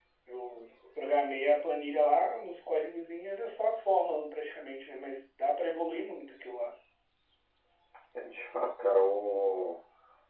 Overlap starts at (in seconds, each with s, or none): none